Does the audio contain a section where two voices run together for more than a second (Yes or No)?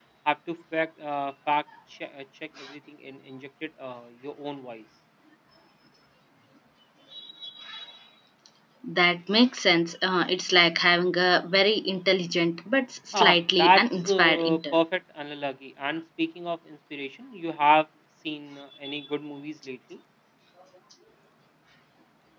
Yes